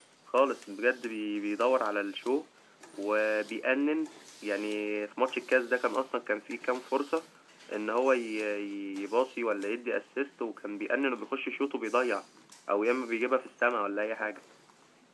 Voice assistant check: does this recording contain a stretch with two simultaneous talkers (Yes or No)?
No